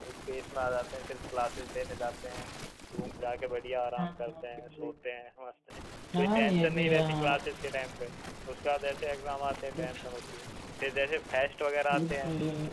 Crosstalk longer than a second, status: present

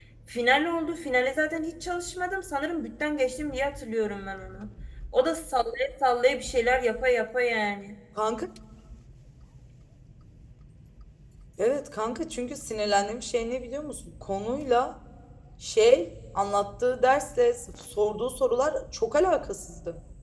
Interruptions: none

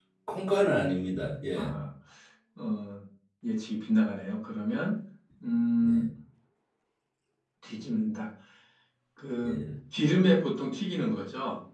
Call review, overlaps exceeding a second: none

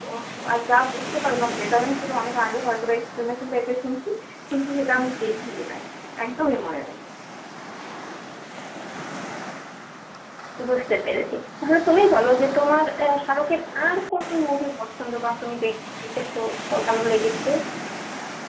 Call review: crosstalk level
none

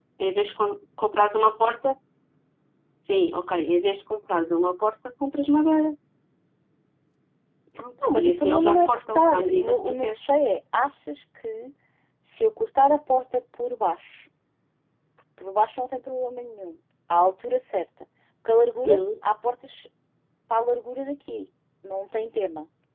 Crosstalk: present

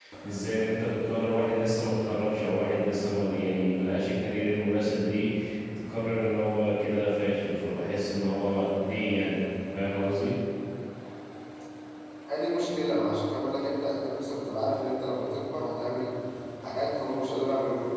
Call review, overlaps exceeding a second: none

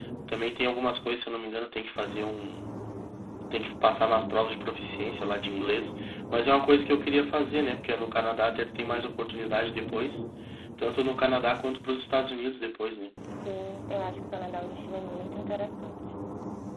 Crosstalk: none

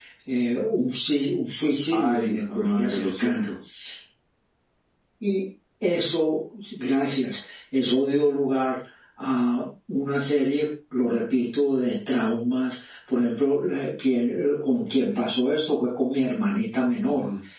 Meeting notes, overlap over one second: present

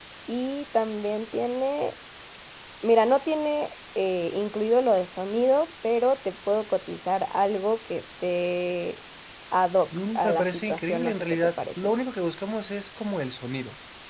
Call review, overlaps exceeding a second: present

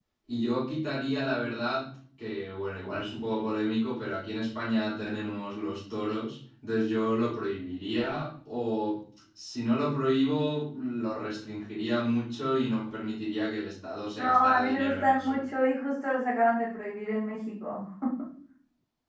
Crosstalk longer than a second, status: present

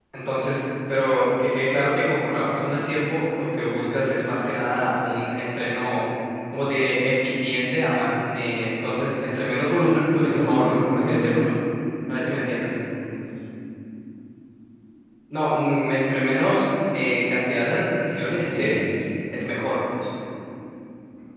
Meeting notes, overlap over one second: present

